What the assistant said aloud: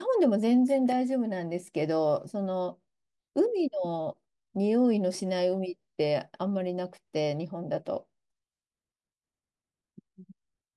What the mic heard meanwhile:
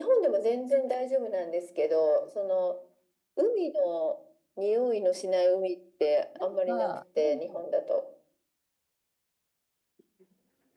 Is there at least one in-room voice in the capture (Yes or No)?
Yes